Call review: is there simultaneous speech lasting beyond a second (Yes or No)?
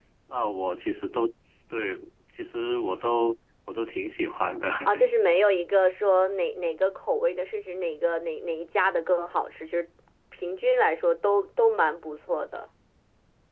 No